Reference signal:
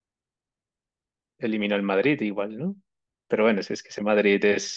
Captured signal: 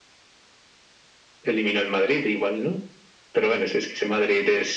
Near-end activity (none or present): none